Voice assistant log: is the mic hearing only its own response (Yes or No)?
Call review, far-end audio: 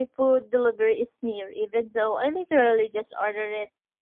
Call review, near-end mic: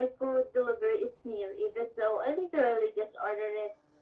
Yes